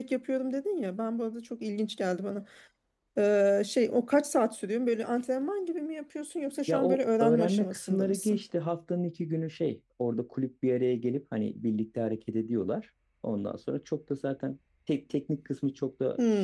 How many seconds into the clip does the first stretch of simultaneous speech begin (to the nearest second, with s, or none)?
7 s